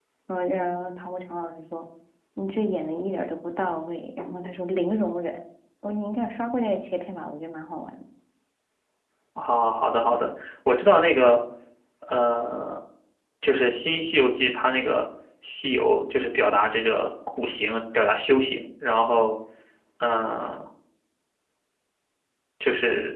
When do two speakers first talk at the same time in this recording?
none

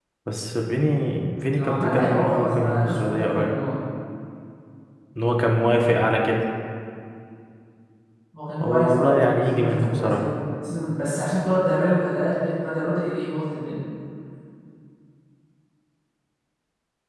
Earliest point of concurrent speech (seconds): 2 s

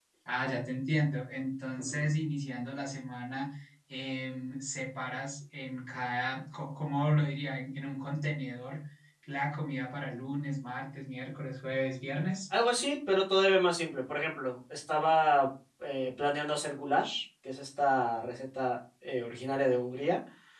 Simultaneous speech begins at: none

